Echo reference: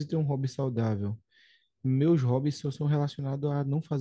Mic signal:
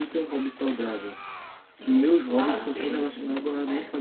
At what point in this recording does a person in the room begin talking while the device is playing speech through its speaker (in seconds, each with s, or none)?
1.8 s